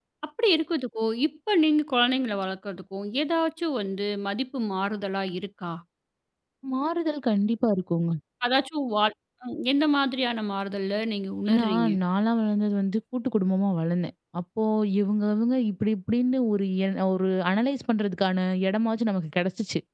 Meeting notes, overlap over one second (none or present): none